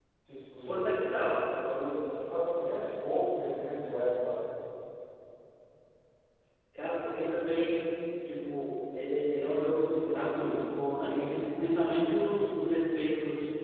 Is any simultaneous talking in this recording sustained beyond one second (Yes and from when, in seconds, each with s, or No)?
No